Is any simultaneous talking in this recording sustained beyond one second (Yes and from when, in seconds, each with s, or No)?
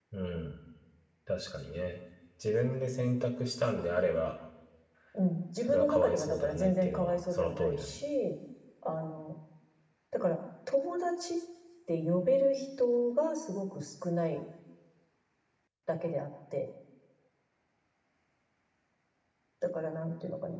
Yes, from 5.6 s